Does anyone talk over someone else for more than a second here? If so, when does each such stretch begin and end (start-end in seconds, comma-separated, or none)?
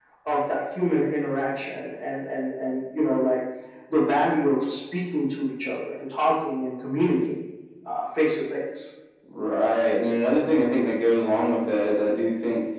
none